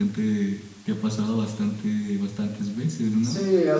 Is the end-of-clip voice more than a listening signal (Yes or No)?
Yes